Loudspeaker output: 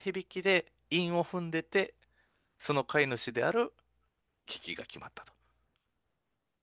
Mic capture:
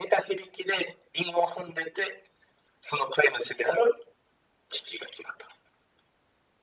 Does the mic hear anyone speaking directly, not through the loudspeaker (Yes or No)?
No